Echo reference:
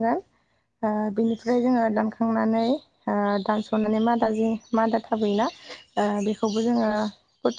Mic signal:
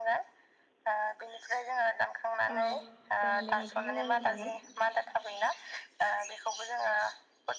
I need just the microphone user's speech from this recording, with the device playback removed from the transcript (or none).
औ जागोन दे नोंथां रायलायजागोन